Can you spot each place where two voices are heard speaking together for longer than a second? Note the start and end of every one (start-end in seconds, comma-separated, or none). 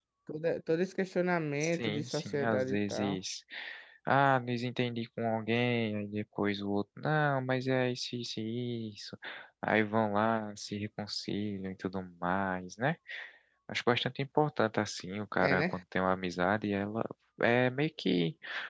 1.6-3.2